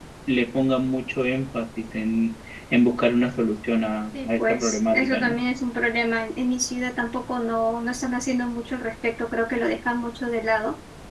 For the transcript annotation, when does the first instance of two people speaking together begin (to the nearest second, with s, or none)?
4 s